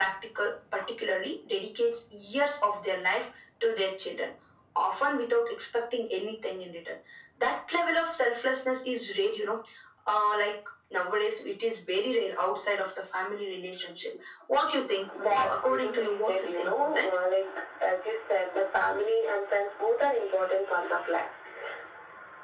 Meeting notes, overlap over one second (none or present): present